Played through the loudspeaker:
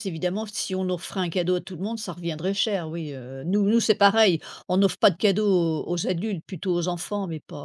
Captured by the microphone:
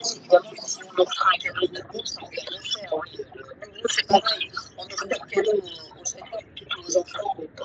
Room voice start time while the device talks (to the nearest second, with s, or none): none